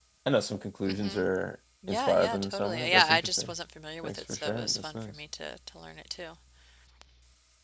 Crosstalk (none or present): present